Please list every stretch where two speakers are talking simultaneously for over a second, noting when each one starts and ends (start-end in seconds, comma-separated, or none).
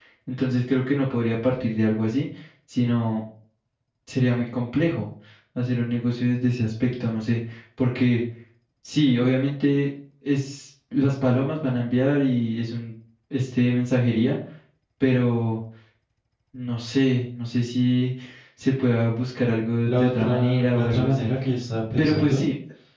19.8-21.1